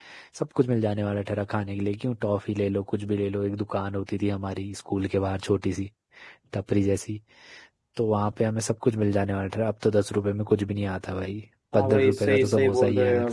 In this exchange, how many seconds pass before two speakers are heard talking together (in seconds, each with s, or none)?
11.7 s